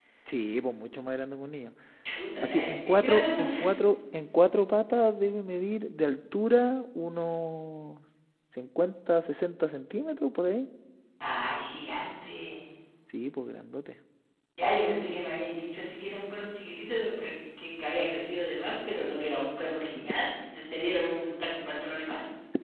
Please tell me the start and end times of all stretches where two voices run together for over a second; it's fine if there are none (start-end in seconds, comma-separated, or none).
2.4-3.6